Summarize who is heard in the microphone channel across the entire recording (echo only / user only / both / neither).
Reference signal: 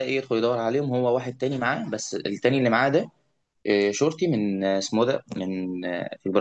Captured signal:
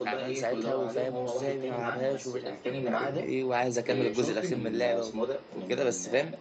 both